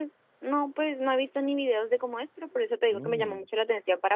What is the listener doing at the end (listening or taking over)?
listening